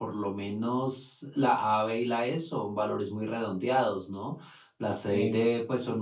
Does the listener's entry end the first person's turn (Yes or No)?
No